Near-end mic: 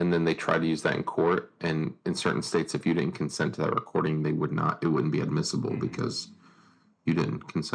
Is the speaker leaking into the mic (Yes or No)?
Yes